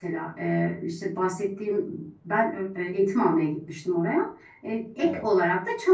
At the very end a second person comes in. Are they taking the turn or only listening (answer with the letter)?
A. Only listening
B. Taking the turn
A